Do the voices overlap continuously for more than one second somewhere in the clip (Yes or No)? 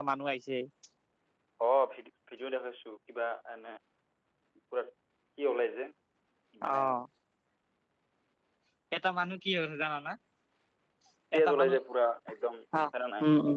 No